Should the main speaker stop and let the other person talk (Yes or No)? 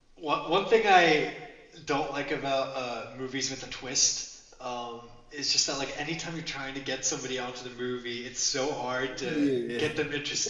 No